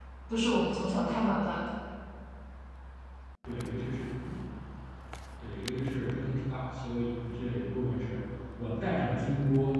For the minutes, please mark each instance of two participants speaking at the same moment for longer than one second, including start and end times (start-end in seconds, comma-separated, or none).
none